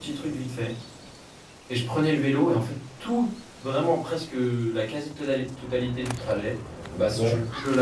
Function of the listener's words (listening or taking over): listening